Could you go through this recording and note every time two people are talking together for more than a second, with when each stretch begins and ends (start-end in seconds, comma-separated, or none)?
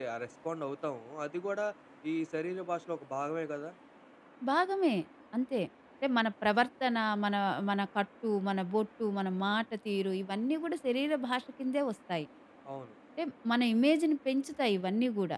none